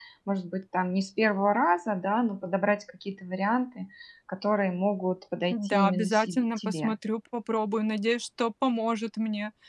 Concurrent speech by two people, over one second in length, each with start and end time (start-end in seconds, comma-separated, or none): 5.5-6.9